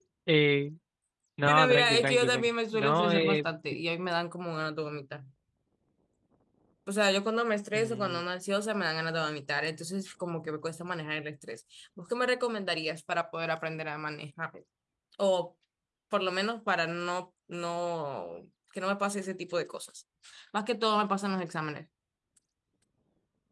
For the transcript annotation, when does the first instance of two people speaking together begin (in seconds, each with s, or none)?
1.4 s